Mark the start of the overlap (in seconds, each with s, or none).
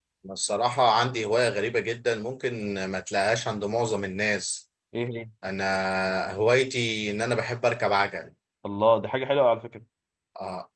none